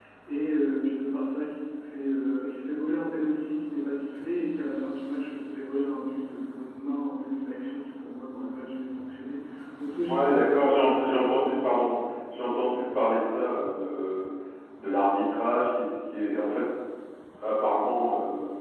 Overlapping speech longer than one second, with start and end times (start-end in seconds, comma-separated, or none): 10.1-11.5